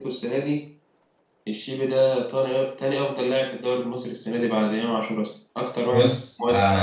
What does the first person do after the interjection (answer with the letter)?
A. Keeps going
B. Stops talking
B